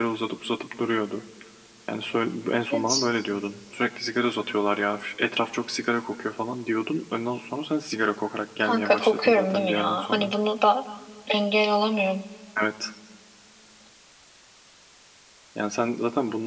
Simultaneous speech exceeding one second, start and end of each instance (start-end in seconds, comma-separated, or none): 8.6-10.3